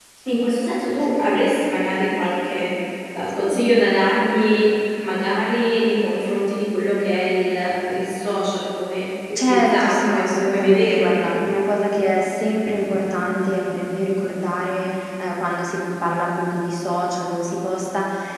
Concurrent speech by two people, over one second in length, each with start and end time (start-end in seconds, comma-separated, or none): 9.3-11.2